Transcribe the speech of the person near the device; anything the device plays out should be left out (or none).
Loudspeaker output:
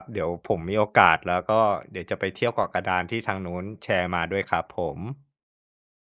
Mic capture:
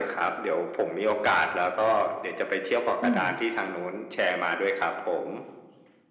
อืม